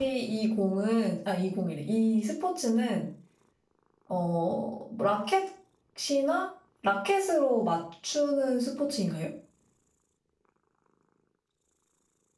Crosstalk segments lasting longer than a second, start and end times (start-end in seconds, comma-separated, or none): none